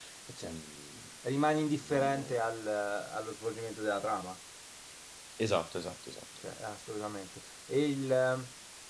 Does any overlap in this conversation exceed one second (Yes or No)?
No